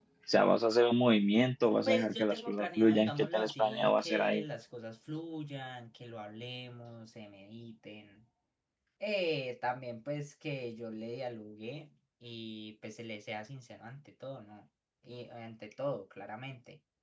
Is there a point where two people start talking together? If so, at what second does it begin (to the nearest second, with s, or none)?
2 s